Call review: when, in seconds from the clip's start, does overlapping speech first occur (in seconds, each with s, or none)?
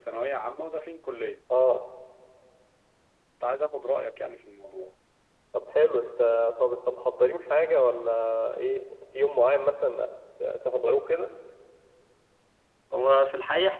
none